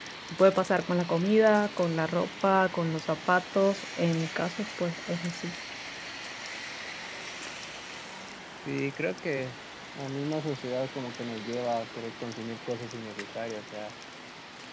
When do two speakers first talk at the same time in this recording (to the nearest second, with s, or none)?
none